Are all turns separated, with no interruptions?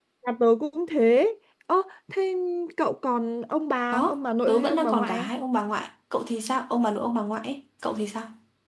No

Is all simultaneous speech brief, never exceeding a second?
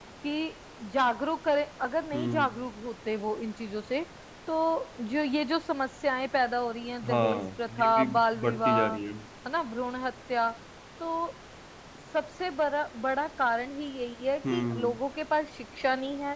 No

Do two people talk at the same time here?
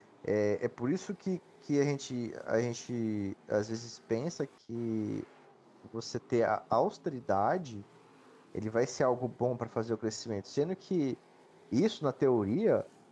No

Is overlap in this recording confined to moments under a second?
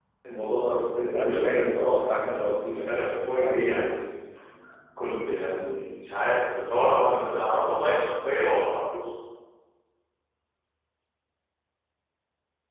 No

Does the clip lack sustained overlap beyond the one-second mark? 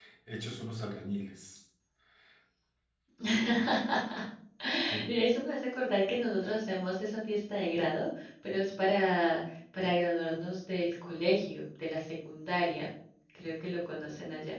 Yes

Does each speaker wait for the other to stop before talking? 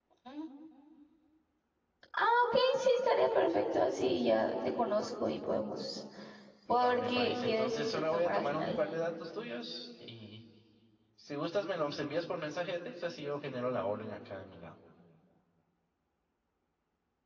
No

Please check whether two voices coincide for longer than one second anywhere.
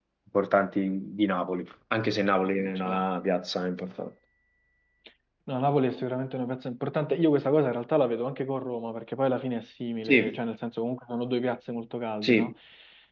No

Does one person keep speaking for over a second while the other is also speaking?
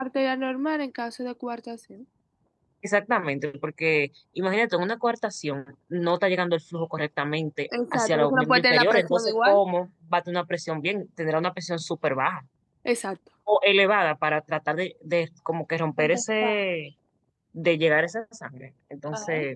Yes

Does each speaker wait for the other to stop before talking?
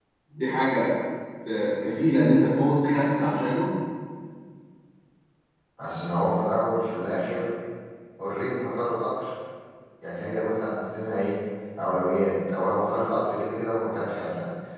Yes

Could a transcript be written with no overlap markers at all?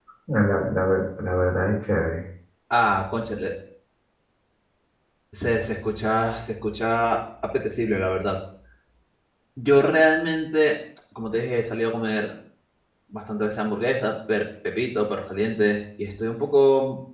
Yes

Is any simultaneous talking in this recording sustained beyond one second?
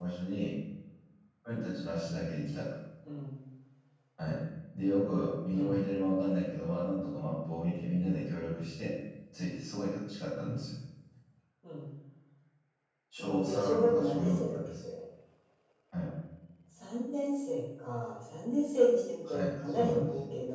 Yes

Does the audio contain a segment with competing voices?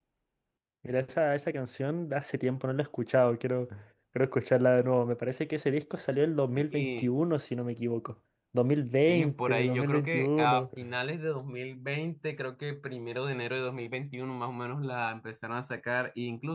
Yes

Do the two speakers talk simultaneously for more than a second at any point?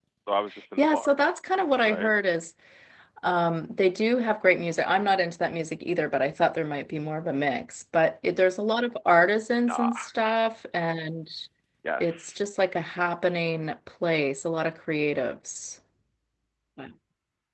No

